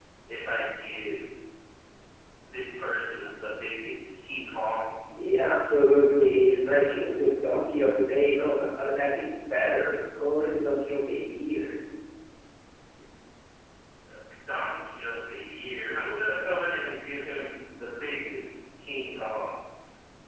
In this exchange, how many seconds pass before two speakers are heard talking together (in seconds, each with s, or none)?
none